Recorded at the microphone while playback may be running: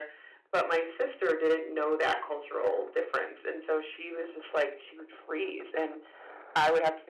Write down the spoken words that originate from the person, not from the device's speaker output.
none

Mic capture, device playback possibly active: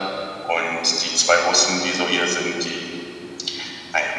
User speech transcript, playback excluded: none

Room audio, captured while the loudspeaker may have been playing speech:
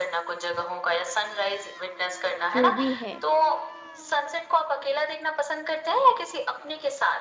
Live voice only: जो भी है,

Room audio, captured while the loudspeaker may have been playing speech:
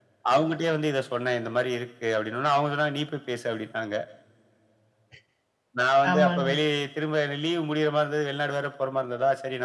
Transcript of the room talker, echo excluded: ஆமாங்க.

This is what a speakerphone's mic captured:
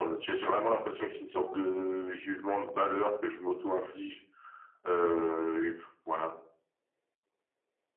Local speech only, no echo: à poster justement?

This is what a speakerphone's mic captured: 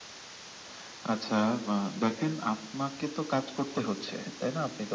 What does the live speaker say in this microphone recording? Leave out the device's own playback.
none

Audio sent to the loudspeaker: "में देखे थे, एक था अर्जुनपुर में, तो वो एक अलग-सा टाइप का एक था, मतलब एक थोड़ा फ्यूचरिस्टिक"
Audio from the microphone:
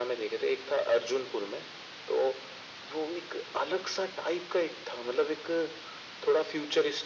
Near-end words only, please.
none

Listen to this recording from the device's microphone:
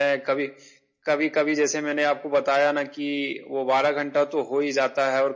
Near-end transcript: none

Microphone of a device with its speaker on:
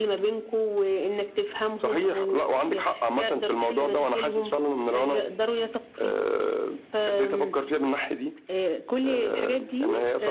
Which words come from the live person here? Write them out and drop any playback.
none

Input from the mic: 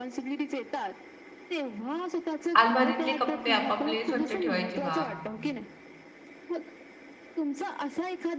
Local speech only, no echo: अलमारीतले कप्पे आपापले स्वच्छ ठेवायचे बा.

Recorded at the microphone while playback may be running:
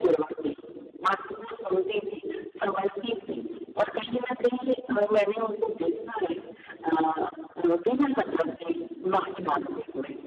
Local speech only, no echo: none

